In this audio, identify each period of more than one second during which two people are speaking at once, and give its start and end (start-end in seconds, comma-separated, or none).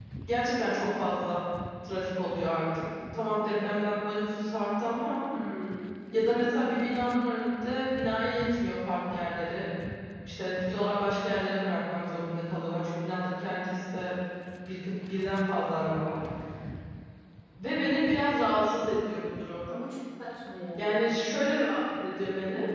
none